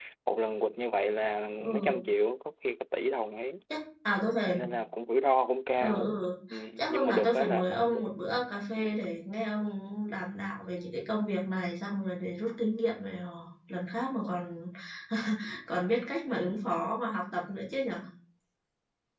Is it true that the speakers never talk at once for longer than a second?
No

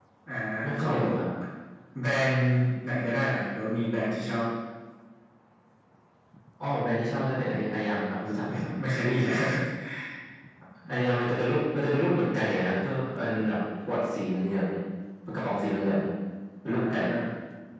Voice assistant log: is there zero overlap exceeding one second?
Yes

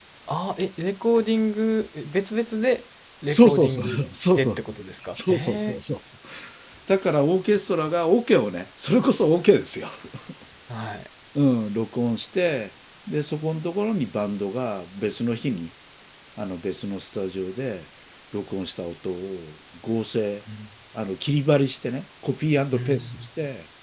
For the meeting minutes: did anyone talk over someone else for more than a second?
Yes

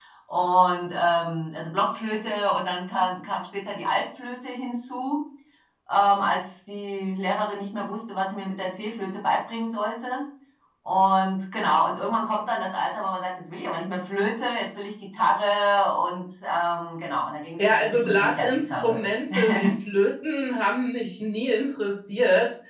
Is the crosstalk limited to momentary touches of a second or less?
No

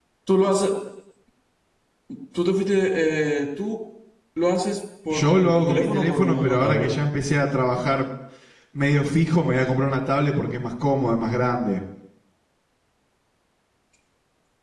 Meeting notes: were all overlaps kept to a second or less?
No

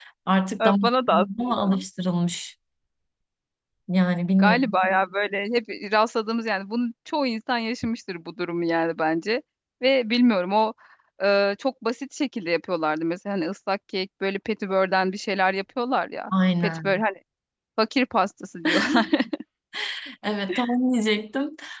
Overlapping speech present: Yes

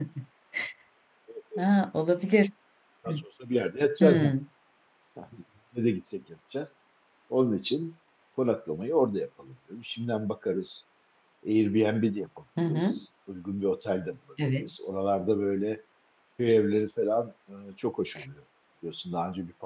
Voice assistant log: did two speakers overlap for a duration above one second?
No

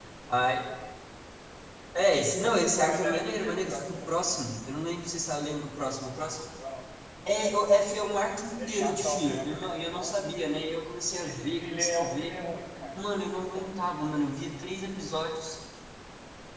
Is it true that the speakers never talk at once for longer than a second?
No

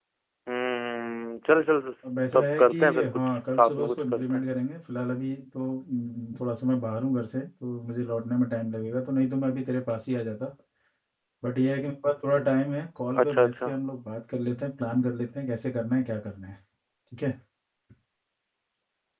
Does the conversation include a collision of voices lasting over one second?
Yes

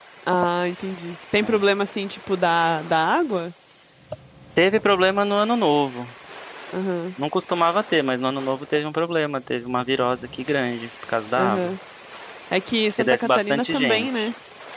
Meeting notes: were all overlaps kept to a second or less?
No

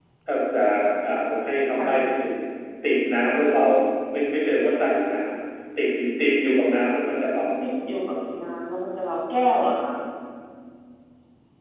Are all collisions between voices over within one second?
Yes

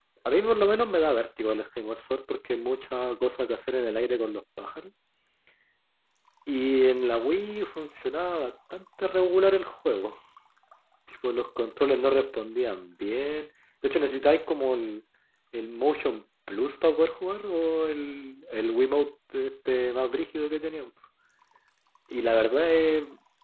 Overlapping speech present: No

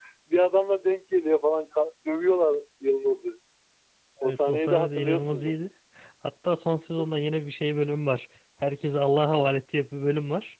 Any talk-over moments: Yes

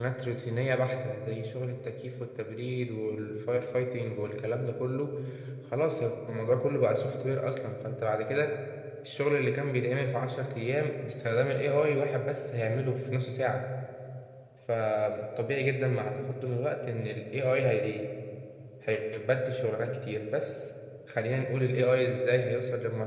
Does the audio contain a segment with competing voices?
No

